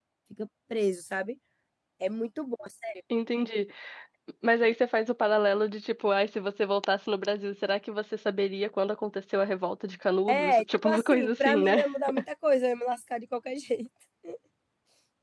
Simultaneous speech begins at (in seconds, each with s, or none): 10.3 s